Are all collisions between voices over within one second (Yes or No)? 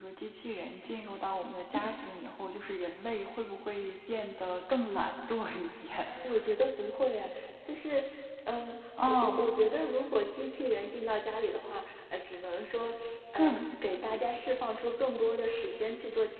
Yes